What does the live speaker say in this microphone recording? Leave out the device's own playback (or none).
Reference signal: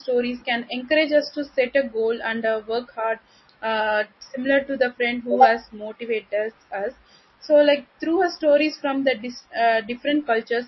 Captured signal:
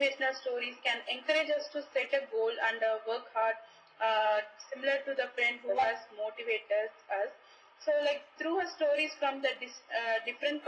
none